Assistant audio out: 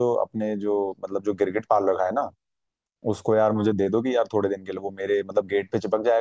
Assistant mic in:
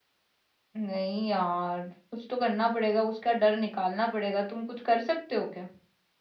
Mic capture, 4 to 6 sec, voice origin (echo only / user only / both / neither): user only